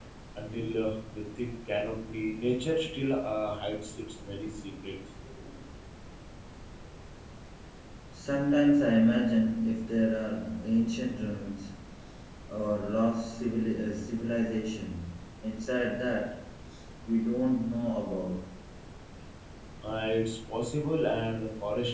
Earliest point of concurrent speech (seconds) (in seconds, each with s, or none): none